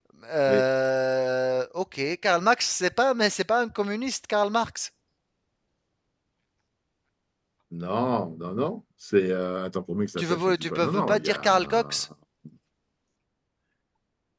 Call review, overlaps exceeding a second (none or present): present